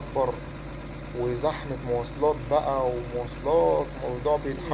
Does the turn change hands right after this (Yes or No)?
Yes